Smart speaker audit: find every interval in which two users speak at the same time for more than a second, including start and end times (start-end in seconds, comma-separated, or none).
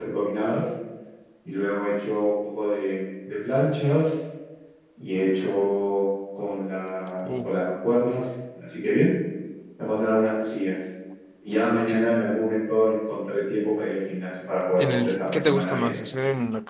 14.8-16.0